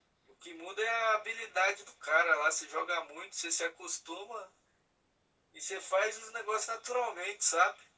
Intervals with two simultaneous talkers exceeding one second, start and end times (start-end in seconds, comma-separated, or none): none